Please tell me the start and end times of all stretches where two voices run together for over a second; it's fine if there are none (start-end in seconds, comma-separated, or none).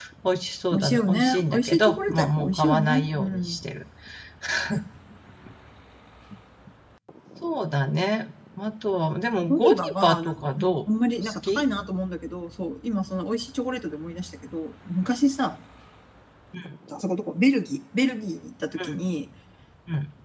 0.7-3.6, 9.4-10.8